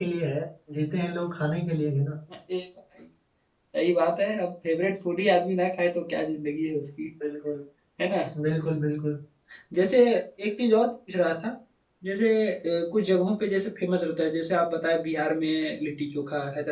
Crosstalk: none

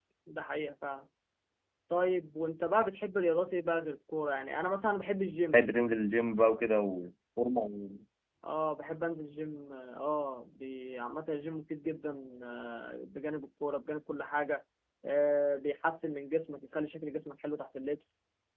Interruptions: none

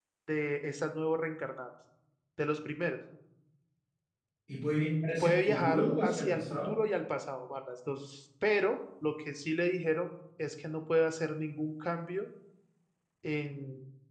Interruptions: present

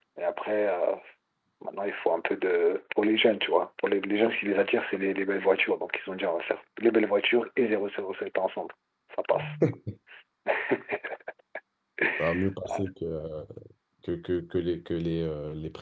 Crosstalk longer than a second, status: none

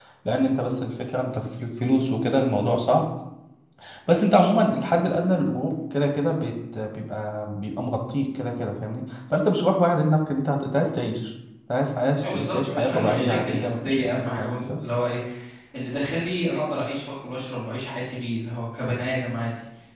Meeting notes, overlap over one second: present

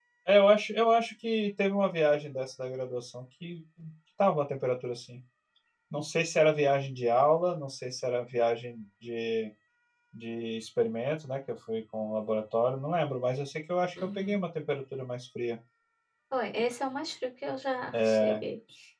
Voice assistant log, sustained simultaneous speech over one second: none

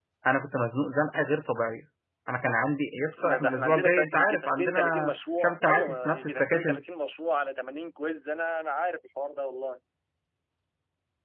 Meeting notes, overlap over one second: present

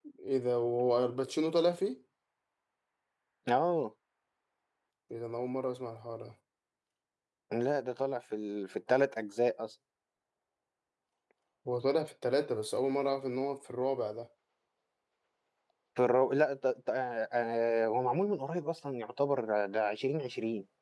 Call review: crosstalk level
none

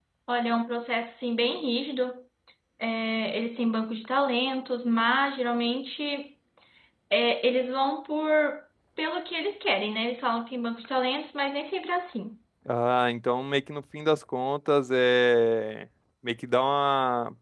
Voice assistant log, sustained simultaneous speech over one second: none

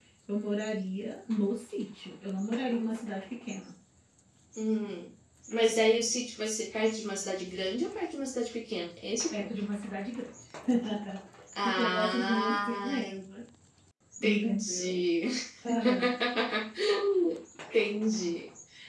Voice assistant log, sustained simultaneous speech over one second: present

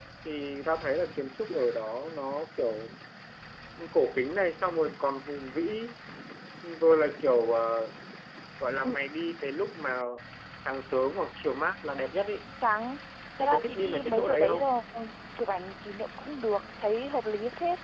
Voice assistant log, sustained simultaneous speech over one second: present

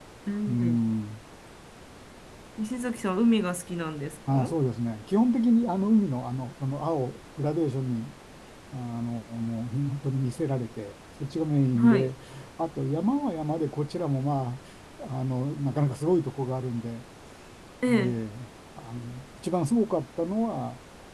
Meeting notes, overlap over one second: none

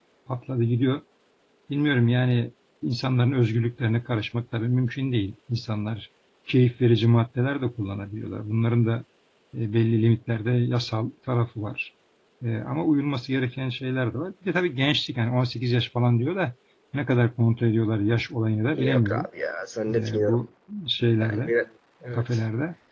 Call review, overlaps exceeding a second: none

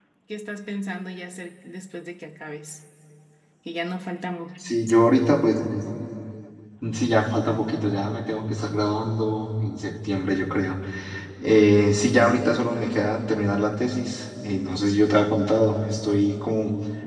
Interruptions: none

